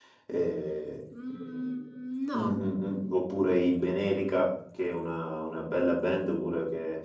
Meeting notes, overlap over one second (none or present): none